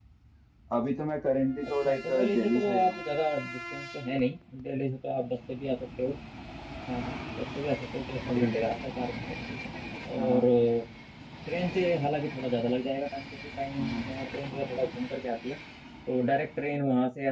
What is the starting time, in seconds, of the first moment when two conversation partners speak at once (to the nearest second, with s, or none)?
2 s